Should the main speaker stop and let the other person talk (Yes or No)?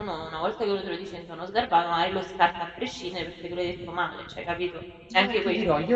Yes